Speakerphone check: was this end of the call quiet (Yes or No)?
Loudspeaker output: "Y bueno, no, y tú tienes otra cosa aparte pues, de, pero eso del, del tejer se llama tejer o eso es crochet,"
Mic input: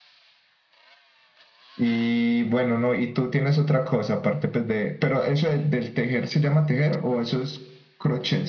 Yes